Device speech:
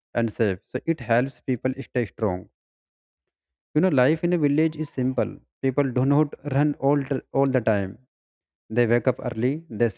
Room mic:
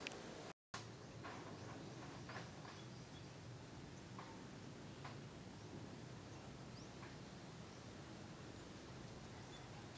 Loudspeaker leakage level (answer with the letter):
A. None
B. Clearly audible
A